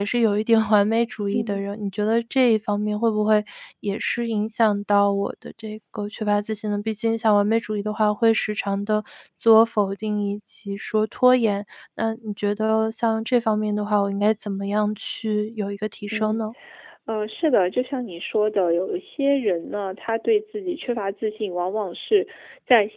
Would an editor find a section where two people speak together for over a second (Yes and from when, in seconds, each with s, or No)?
No